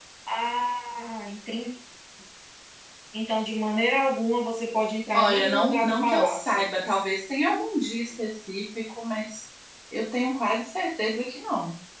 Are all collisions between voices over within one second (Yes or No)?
No